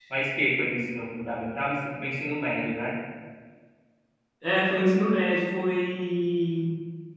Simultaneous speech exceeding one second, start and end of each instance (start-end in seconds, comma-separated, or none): none